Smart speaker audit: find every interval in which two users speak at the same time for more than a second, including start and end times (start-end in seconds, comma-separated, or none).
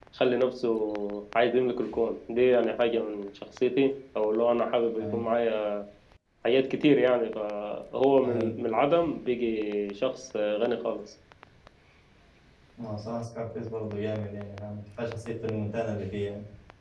none